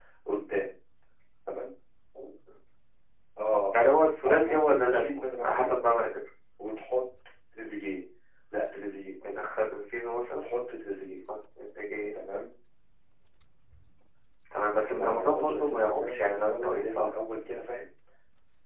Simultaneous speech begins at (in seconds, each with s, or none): 4.3 s